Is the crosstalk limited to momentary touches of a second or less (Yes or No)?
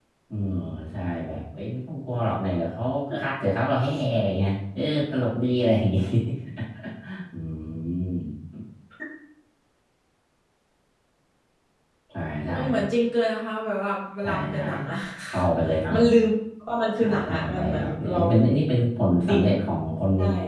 No